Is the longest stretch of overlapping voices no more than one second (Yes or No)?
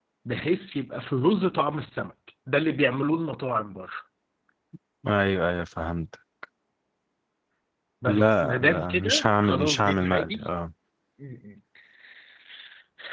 No